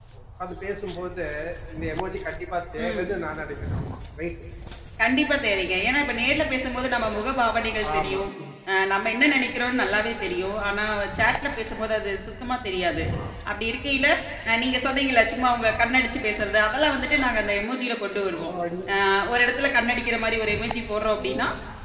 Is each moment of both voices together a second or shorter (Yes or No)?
Yes